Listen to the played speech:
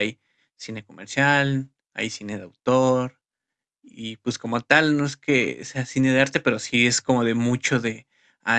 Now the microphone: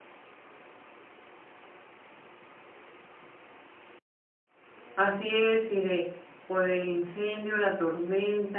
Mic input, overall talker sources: user only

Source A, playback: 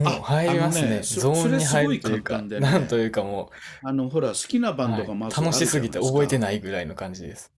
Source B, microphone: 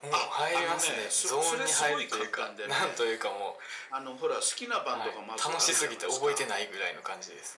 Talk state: echo only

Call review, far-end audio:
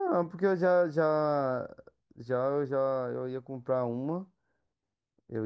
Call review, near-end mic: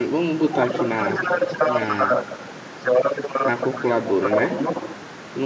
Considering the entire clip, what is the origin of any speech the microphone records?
both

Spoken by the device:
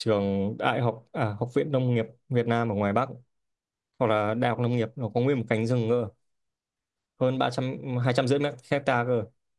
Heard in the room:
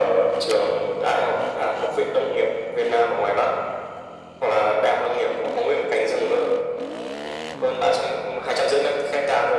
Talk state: echo only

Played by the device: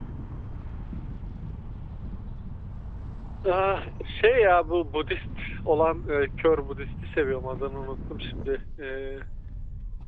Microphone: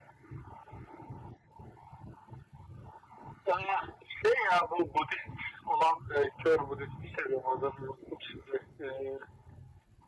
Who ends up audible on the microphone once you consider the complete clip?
echo only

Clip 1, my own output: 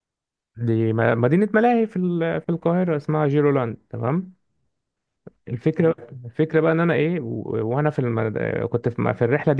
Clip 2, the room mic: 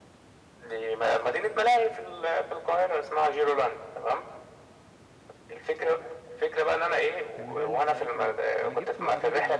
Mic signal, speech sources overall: both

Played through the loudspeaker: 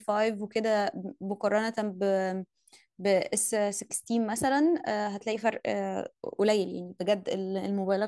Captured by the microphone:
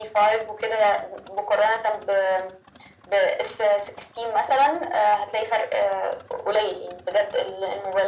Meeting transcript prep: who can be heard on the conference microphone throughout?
echo only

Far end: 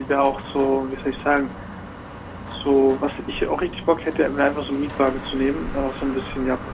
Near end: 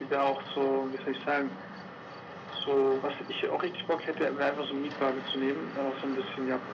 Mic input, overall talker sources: echo only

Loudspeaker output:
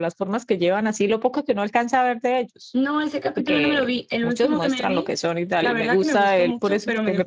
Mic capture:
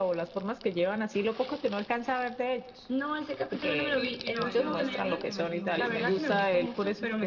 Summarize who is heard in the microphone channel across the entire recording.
both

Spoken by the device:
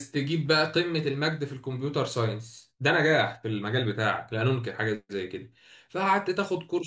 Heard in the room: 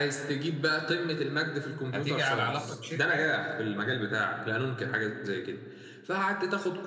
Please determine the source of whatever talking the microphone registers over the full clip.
both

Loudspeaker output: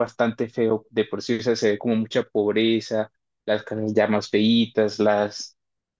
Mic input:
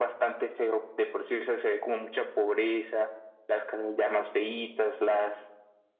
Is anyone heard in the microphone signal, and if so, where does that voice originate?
echo only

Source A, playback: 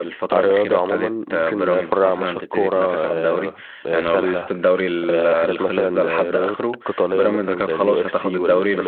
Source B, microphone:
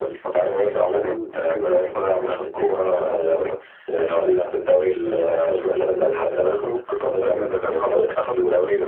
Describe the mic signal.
echo only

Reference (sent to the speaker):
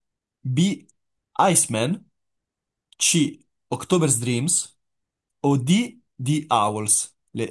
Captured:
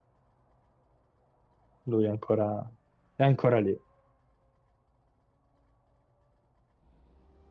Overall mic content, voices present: user only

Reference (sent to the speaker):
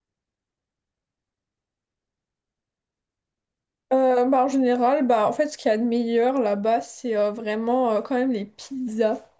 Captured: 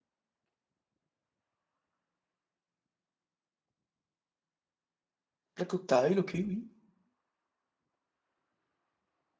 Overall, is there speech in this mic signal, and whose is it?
user only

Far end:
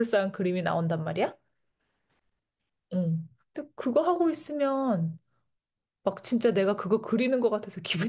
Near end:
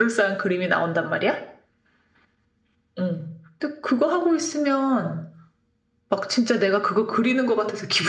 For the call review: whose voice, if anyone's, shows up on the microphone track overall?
echo only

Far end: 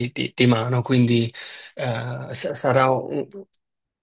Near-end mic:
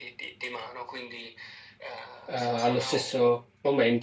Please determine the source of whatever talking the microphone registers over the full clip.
both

